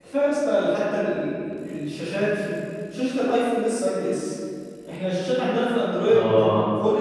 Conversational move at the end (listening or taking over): listening